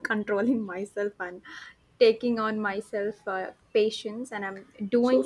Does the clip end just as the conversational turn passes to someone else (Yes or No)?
Yes